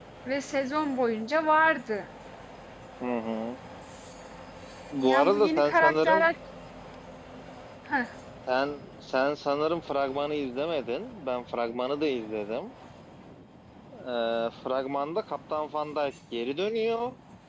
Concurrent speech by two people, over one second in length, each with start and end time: 5.0-6.3

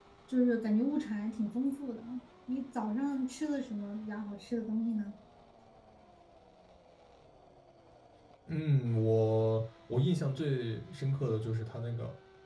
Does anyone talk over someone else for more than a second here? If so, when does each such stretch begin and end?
none

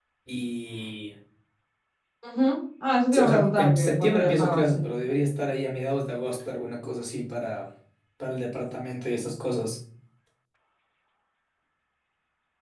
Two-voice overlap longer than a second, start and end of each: 3.1-4.8

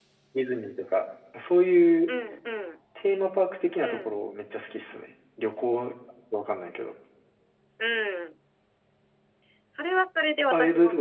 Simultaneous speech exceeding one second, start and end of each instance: none

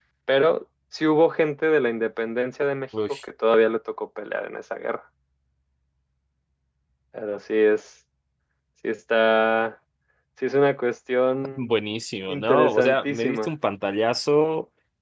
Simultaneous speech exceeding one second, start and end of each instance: 12.3-13.5

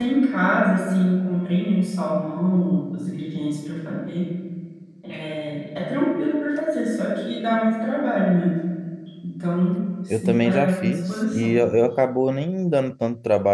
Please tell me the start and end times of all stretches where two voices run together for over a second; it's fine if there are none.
10.1-11.6

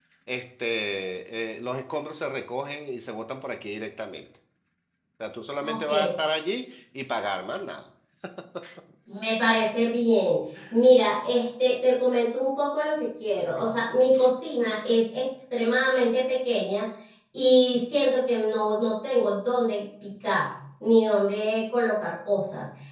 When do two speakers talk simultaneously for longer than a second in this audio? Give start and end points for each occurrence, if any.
none

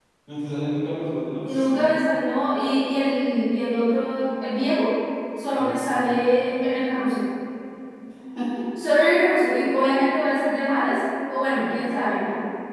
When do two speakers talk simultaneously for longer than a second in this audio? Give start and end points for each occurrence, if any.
none

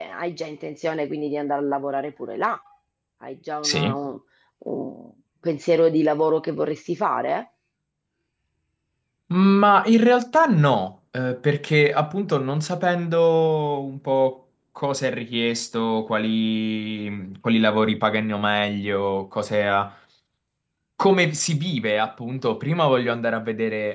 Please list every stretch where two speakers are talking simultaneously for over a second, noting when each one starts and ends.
none

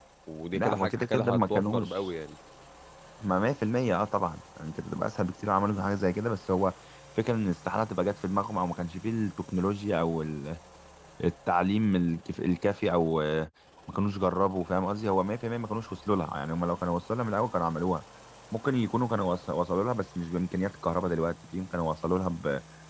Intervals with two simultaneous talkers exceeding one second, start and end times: 0.5-2.1

